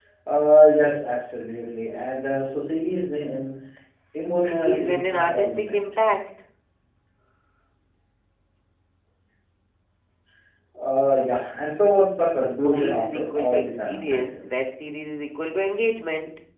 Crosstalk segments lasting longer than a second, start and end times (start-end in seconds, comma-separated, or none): 4.4-5.8, 12.6-14.7